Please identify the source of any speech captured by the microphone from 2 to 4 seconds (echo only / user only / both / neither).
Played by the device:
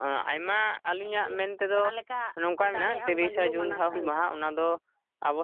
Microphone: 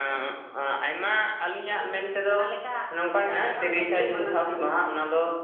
echo only